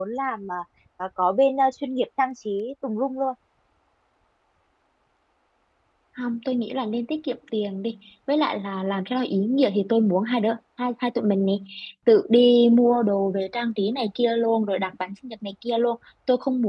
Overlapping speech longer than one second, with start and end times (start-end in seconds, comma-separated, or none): none